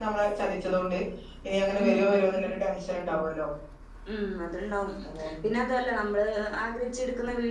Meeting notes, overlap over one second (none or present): none